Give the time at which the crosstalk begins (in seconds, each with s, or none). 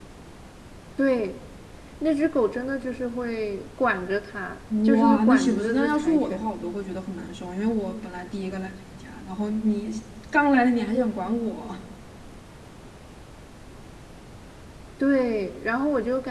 4.7 s